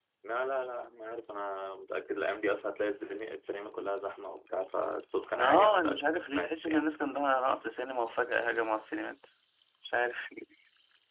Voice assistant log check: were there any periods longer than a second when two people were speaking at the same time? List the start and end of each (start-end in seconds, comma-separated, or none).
5.4-6.8